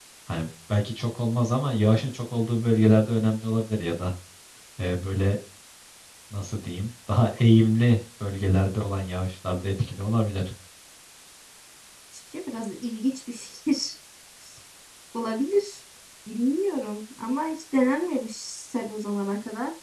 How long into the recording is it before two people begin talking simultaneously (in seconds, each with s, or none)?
none